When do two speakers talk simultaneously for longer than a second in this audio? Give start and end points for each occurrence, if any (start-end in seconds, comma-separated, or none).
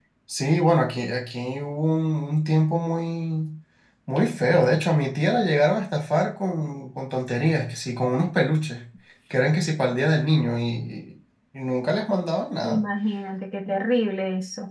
none